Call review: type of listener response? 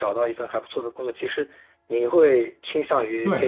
listening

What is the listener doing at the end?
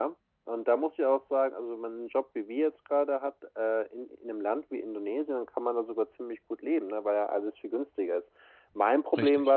listening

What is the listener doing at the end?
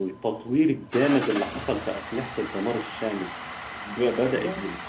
listening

